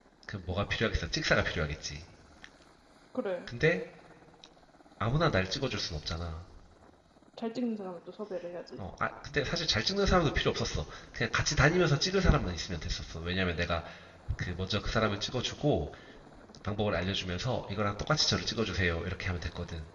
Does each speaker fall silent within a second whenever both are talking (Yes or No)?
Yes